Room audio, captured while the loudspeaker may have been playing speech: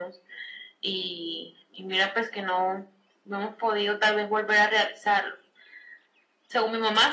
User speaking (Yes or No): No